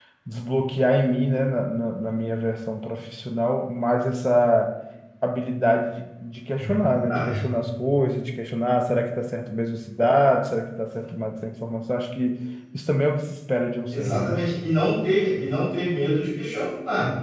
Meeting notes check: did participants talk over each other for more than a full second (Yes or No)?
No